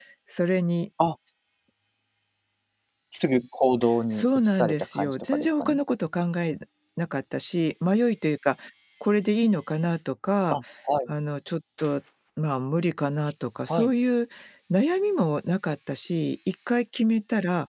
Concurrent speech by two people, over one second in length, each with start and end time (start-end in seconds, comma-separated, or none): 4.1-5.8